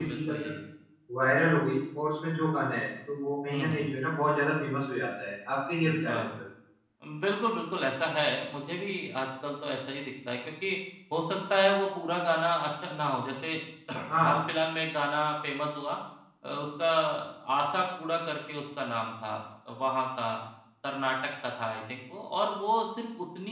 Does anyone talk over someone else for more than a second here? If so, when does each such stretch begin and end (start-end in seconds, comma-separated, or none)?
none